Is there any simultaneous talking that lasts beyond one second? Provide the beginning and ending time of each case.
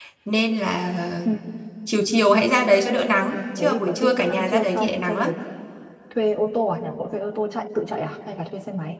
3.3-5.3

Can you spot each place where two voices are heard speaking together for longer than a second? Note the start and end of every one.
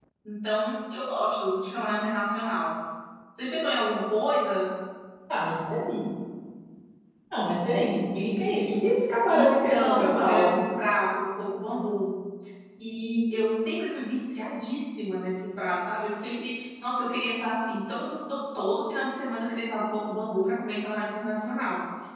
9.3-10.5

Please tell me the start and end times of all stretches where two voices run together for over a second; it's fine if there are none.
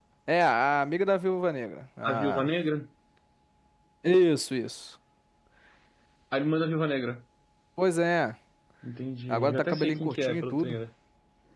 9.3-10.8

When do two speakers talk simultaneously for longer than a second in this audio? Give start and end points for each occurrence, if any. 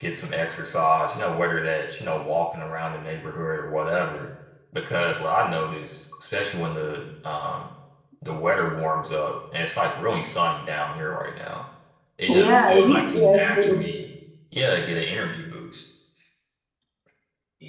12.3-13.8

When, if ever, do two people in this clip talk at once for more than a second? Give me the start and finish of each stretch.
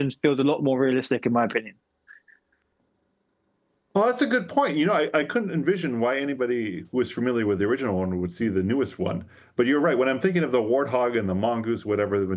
none

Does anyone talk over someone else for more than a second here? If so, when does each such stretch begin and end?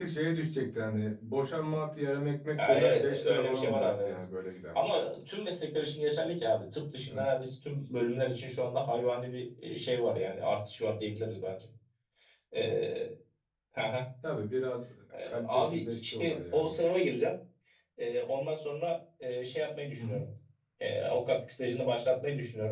2.6-4.2, 15.2-16.7

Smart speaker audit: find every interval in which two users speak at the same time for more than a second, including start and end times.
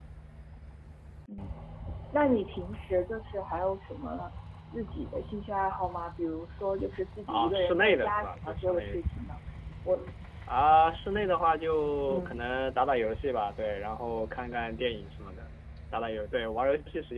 7.3-9.0

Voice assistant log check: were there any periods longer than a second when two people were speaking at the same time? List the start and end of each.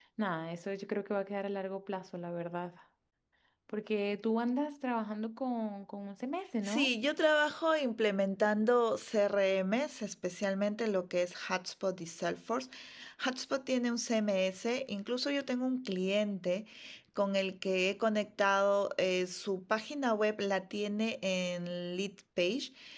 none

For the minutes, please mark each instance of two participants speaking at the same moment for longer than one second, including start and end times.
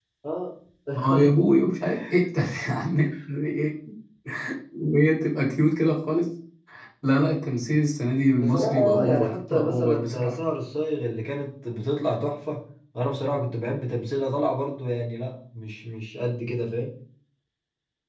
8.3-10.3

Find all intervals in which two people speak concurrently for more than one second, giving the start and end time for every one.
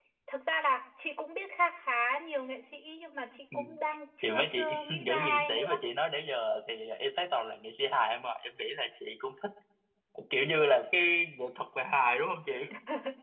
4.2-5.8

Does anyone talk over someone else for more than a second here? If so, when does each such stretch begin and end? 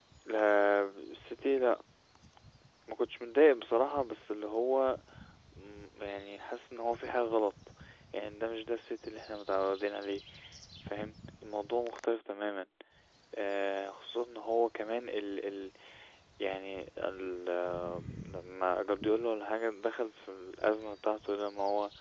none

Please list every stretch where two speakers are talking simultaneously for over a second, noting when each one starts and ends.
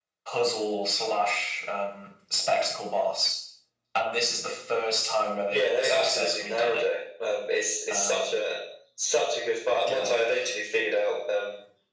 5.5-6.8

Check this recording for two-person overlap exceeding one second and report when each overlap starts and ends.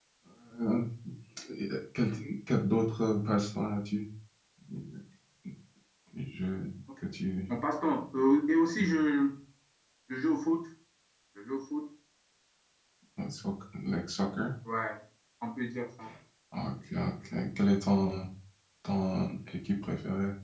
none

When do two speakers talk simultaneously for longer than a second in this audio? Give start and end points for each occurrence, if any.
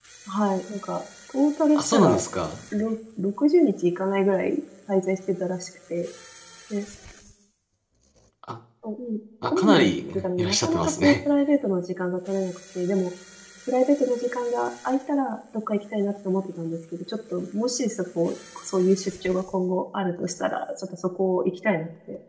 9.5-11.2

